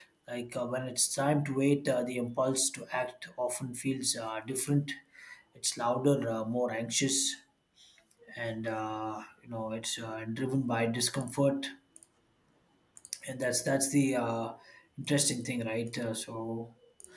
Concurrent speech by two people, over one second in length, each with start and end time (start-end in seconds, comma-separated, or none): none